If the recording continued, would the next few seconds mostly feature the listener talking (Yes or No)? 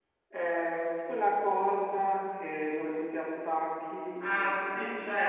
Yes